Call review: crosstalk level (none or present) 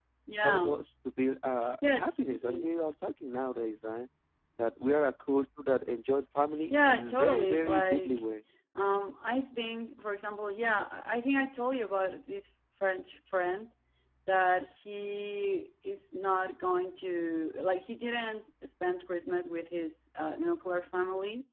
present